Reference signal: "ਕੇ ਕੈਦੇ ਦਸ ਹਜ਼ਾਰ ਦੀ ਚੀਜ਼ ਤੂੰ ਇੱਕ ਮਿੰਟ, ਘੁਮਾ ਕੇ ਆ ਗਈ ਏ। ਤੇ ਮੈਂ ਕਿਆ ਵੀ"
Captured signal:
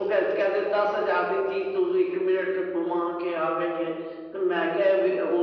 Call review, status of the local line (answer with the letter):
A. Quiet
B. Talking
A